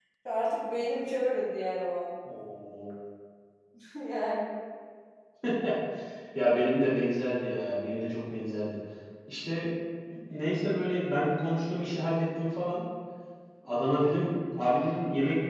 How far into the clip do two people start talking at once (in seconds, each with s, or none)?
none